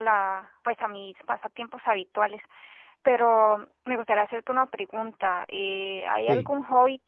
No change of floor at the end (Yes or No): Yes